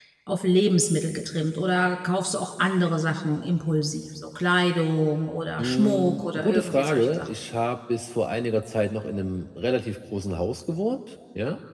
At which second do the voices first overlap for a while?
5.6 s

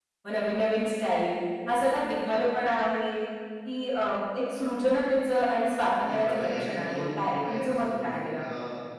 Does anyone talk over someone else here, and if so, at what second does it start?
6.1 s

